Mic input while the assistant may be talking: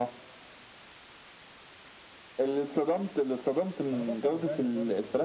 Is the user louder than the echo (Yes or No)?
No